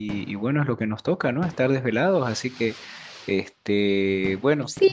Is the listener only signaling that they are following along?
No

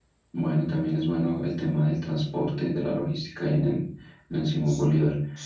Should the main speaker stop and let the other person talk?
Yes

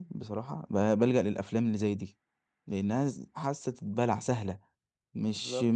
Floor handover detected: No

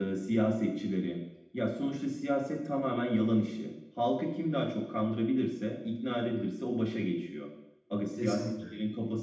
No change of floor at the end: Yes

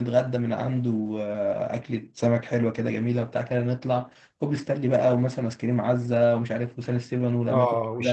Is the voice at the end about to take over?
Yes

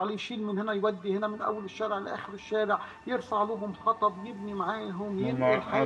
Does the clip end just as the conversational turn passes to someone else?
Yes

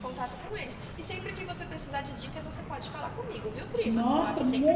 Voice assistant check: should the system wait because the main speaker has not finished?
No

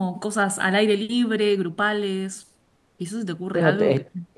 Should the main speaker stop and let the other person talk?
Yes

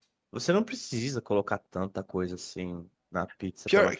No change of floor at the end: No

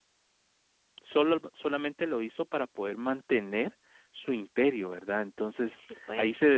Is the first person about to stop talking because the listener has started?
No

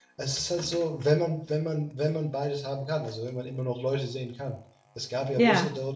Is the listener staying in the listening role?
Yes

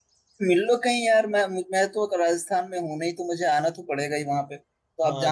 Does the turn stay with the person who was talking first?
No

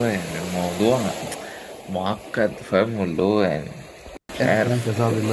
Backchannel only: No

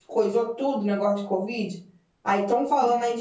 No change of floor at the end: Yes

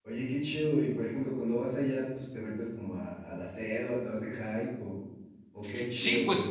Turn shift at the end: Yes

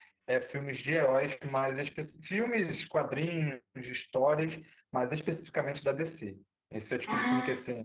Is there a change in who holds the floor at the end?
No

